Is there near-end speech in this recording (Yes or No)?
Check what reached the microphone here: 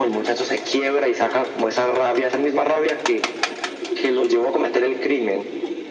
No